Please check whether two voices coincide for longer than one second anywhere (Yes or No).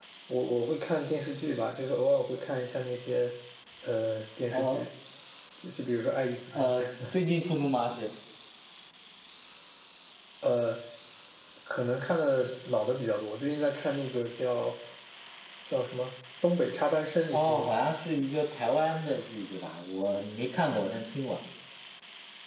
No